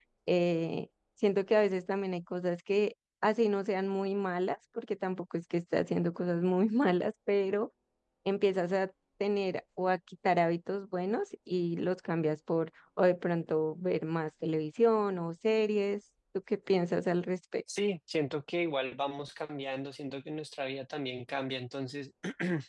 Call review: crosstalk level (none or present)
none